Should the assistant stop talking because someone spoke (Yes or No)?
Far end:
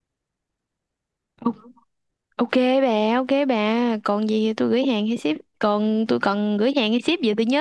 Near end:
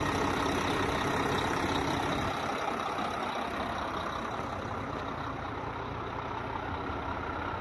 No